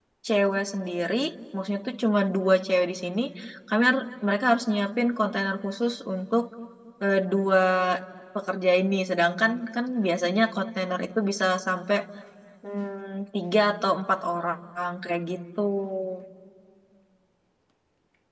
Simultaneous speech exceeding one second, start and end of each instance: none

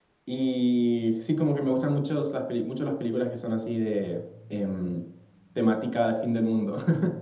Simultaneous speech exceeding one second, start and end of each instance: none

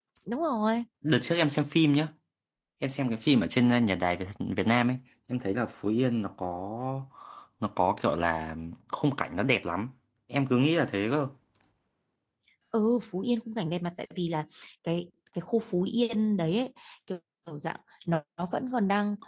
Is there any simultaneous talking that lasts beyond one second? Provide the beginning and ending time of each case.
none

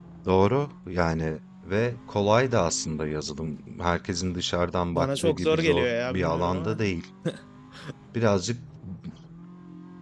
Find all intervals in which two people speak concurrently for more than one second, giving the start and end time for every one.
4.9-6.8

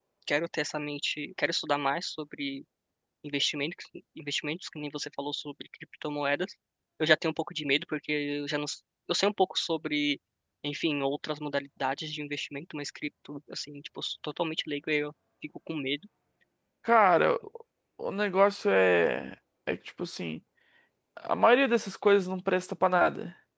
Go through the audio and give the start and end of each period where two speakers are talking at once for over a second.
none

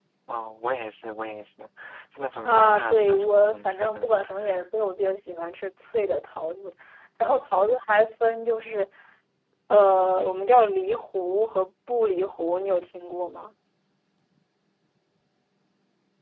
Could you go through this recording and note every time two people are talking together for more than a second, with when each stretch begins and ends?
2.4-4.1

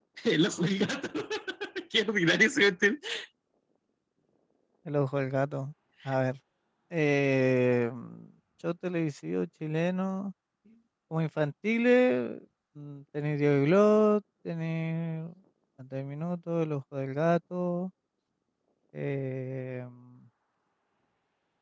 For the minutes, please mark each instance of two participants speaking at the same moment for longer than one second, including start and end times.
none

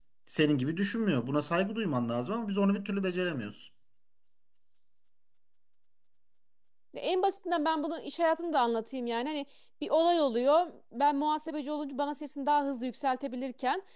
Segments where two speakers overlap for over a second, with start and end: none

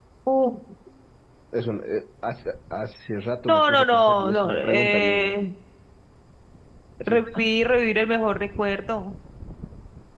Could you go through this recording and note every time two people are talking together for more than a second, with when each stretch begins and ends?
3.5-5.3

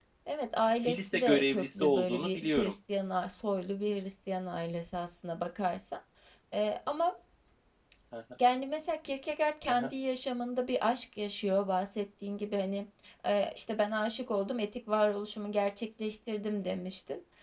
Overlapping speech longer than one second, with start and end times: 0.6-2.7

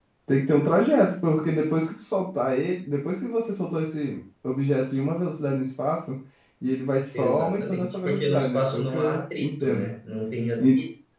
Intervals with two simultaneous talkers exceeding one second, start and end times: 7.1-9.9

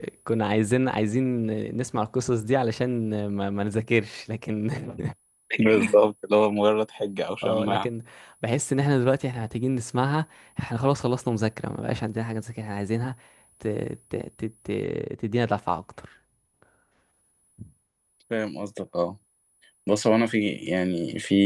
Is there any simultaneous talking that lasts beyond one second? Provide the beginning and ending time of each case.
none

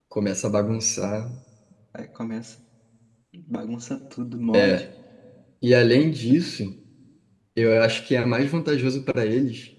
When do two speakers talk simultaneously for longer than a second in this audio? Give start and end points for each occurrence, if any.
none

